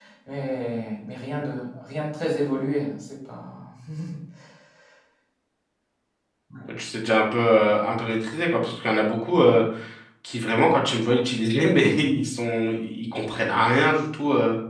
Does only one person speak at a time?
Yes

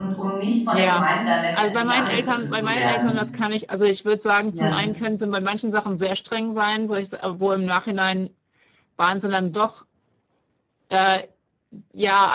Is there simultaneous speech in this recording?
Yes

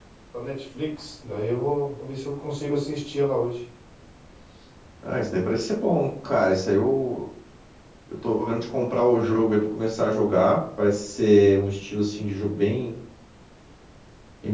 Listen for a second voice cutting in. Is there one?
No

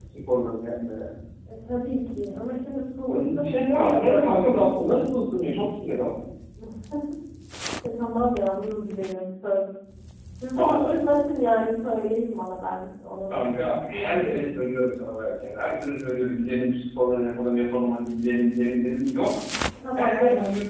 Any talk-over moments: Yes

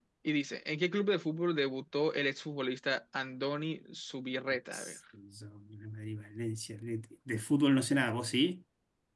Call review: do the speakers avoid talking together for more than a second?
Yes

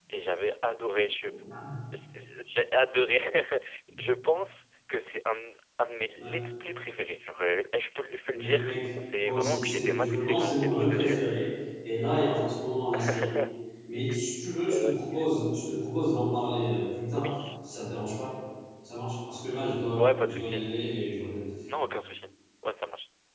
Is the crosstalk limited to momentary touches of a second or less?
No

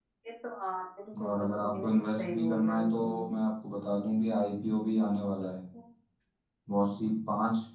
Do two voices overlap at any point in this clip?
Yes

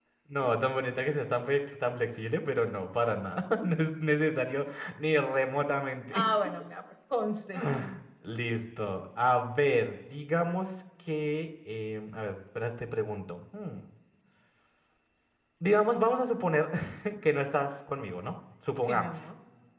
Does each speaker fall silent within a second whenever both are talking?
Yes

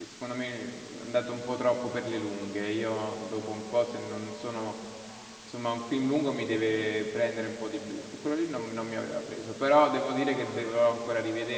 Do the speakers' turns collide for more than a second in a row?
No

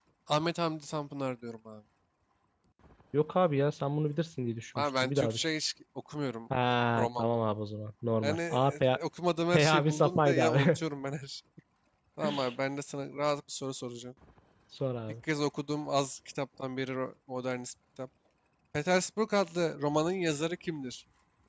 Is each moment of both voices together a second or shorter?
No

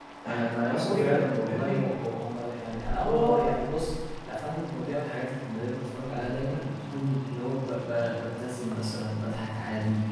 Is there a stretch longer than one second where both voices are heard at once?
Yes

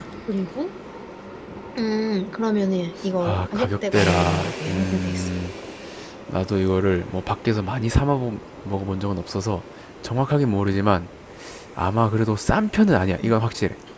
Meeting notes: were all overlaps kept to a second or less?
No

